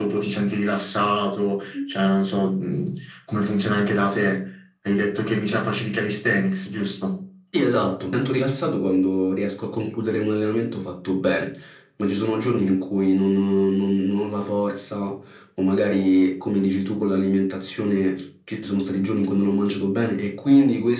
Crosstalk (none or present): none